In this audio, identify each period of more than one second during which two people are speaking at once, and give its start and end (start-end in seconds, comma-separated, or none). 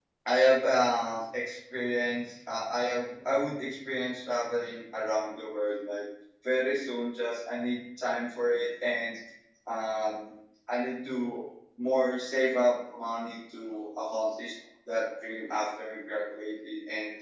none